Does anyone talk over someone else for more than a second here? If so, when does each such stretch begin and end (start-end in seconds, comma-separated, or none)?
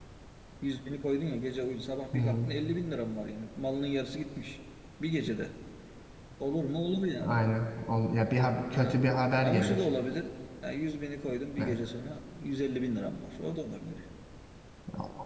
none